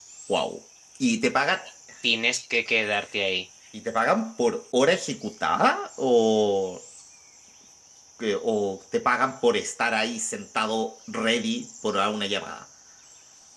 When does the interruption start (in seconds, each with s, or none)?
none